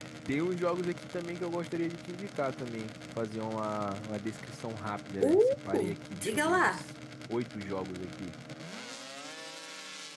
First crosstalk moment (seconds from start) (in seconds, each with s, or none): 5.2 s